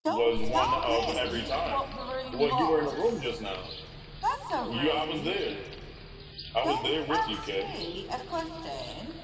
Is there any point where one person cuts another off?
Yes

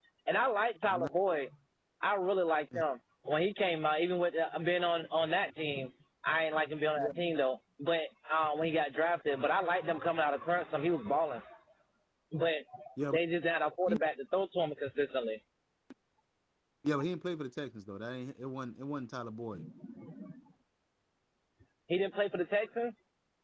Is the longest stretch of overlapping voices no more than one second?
Yes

